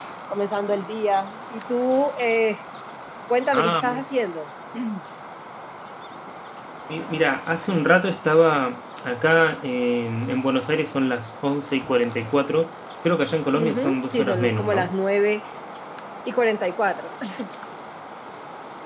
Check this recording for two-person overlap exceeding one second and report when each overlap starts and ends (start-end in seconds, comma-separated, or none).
13.5-14.9